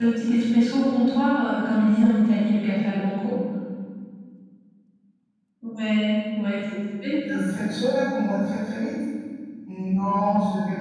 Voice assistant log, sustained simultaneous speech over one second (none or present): none